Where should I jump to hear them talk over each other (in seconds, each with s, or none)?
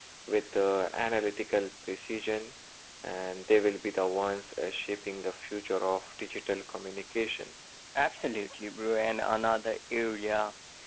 none